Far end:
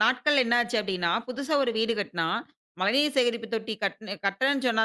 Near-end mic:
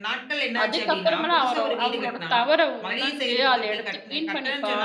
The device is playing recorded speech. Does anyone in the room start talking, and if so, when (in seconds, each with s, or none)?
0.6 s